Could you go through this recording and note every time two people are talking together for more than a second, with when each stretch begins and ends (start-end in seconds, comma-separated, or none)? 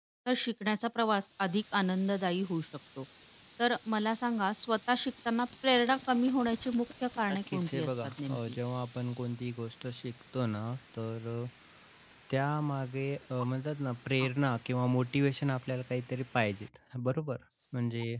7.3-8.6